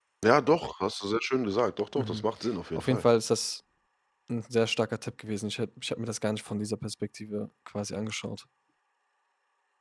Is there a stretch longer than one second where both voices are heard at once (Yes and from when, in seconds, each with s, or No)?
No